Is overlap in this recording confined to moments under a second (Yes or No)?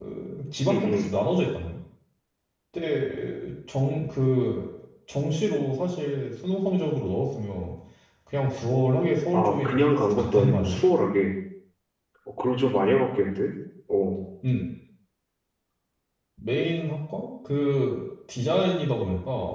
No